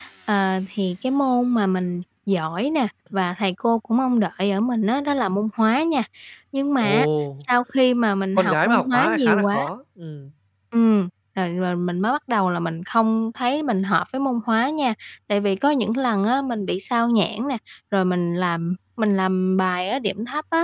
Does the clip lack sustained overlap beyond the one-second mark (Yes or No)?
No